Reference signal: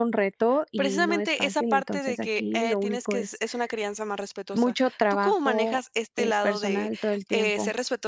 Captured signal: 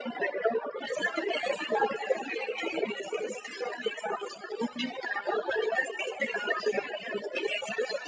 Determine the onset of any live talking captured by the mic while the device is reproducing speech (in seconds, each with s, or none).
none